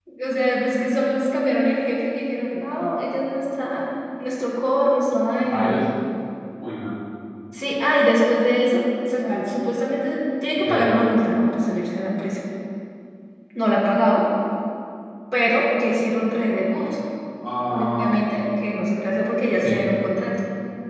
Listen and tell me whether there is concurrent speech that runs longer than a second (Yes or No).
No